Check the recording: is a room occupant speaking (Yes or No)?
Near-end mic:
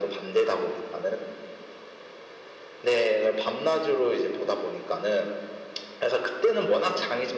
No